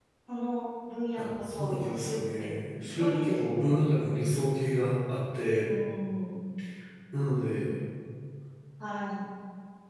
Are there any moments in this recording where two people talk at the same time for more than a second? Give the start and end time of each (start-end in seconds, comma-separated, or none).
1.1-3.8